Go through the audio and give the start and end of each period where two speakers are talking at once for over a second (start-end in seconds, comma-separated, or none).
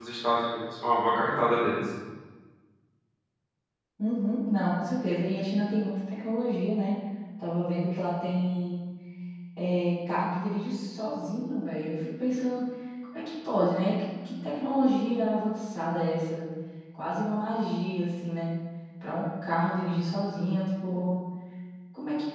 none